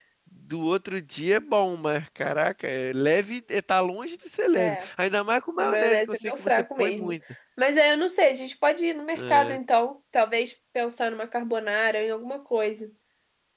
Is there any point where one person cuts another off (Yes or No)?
Yes